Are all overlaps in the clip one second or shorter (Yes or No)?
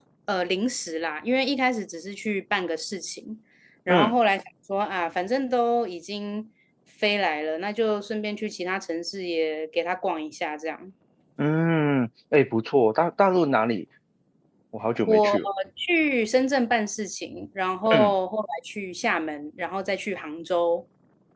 Yes